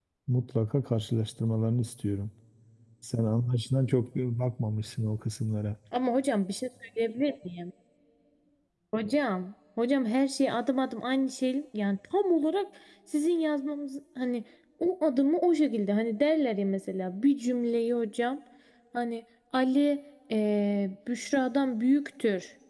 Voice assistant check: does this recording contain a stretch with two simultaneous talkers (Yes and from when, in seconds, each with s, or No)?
No